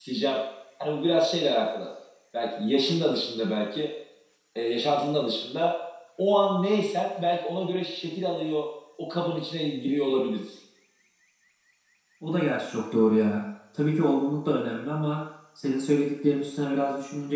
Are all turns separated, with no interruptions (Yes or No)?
Yes